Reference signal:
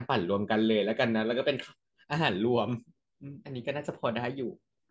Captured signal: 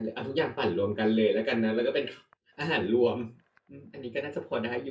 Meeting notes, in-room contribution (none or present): none